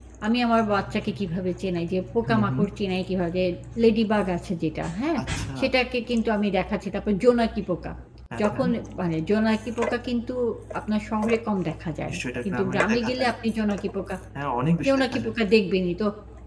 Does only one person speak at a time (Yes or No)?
No